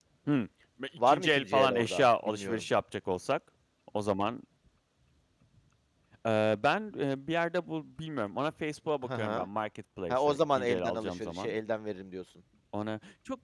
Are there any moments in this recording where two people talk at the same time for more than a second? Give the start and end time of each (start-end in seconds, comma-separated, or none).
1.1-2.6, 10.1-11.6